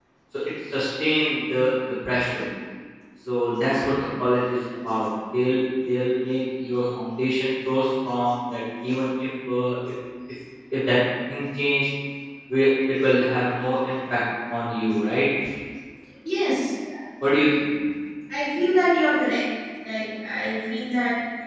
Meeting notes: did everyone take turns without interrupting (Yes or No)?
Yes